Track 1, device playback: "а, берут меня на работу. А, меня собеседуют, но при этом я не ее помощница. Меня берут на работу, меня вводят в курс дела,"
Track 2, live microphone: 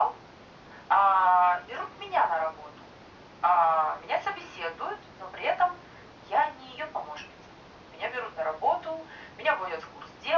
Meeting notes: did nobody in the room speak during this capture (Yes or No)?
Yes